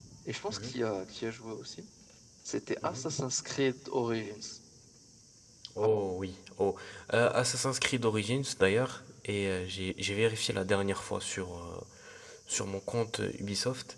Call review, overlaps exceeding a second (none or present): none